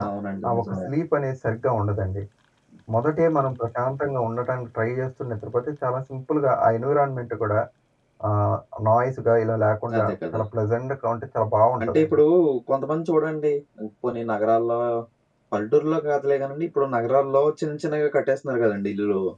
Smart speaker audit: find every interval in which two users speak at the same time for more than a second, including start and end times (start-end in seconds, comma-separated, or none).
none